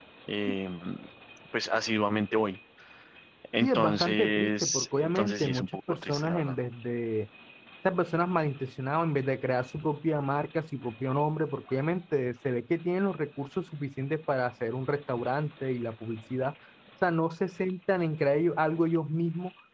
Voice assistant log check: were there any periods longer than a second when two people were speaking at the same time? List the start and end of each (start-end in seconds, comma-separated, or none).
3.6-6.5